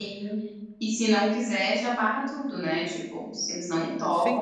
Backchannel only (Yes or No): No